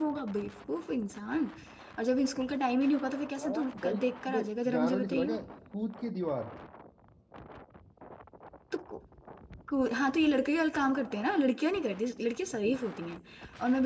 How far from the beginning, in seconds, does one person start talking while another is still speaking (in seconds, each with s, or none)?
3.4 s